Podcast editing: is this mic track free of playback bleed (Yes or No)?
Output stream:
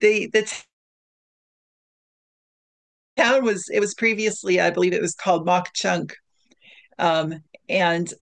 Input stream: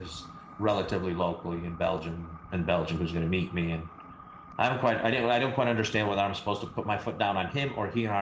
Yes